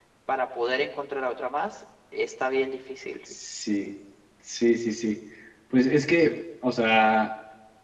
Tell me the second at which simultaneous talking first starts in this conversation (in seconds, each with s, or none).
none